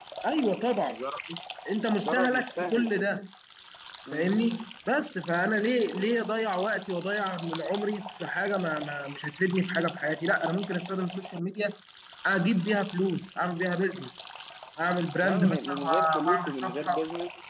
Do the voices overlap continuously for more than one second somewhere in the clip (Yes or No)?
Yes